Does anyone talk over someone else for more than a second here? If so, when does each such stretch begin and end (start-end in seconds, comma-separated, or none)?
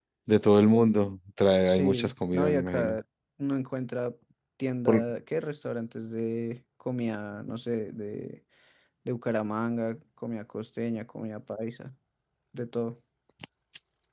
1.7-3.0